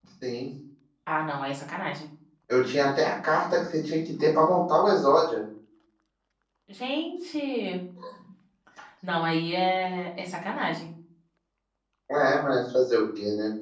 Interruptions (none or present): none